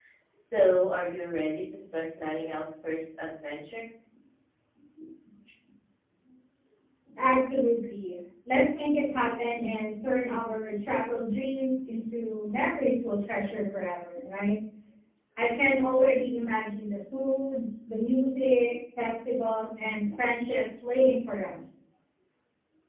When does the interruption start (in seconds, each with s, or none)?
none